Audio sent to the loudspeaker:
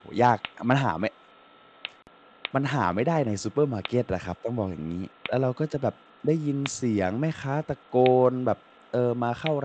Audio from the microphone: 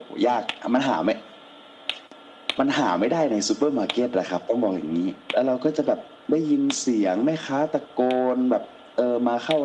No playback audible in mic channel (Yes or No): No